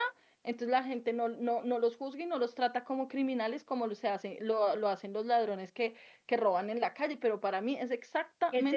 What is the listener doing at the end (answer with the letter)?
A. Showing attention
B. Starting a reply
B